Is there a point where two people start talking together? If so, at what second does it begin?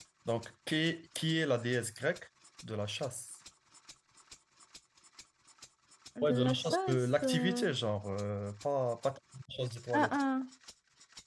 6.2 s

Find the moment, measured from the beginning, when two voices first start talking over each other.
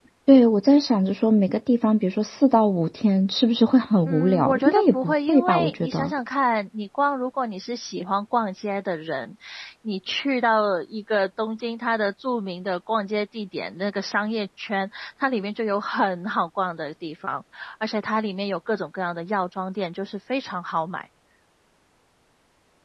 4.1 s

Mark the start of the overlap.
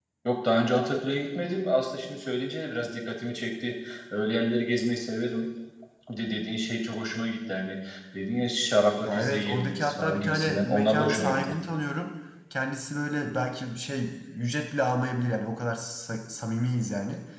9.0 s

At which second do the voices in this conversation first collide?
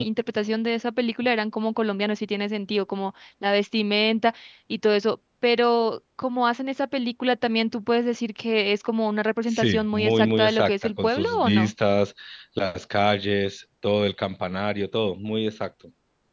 9.5 s

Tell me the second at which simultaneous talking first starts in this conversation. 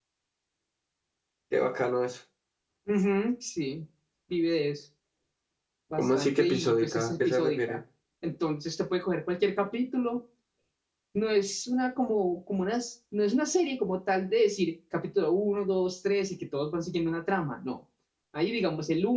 6.0 s

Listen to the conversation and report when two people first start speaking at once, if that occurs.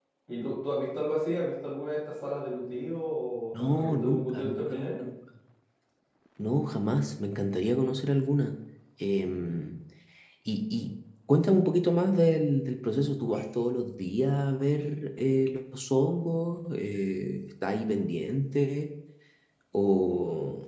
3.5 s

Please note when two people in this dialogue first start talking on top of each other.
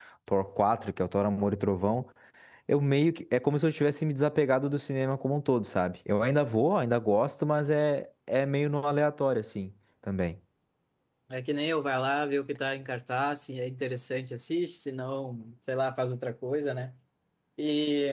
none

